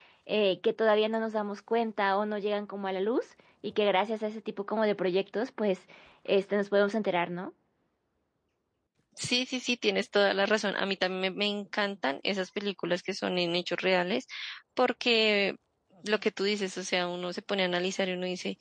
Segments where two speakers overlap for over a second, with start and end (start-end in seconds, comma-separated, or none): none